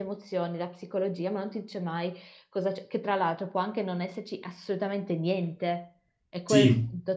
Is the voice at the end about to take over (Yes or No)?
No